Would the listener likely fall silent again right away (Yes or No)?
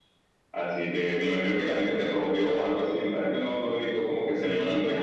No